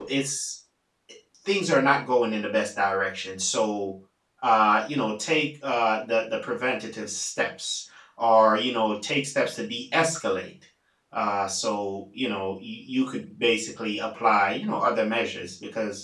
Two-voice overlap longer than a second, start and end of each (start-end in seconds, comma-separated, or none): none